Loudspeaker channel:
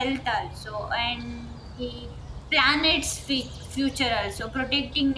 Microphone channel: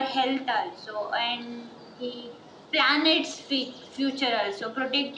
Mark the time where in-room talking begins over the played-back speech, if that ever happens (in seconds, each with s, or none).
none